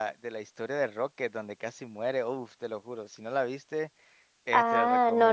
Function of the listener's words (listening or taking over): taking over